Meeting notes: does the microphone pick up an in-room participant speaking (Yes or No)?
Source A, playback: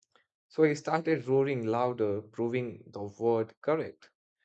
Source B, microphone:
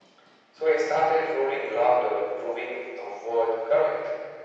No